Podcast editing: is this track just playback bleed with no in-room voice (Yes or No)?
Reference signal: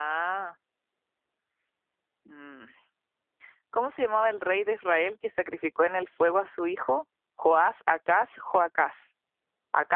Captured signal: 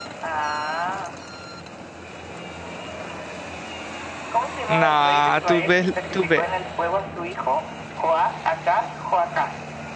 No